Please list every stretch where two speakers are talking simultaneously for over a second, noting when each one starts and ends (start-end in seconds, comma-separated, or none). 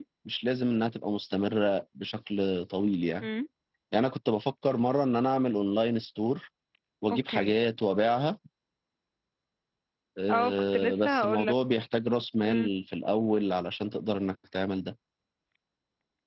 10.3-11.5